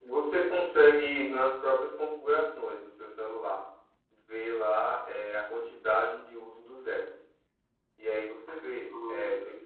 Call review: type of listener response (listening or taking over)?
listening